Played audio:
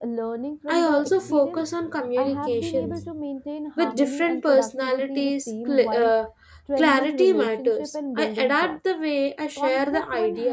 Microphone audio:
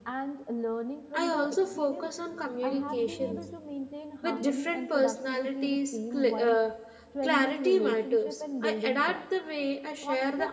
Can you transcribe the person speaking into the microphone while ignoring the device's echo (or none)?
none